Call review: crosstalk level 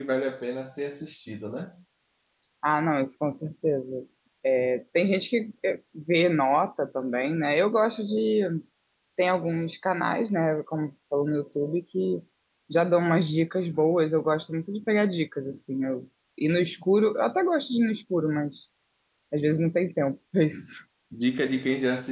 none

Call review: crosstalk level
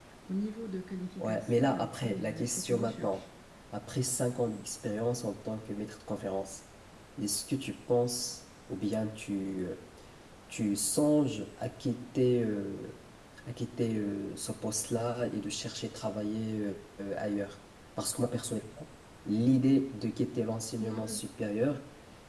present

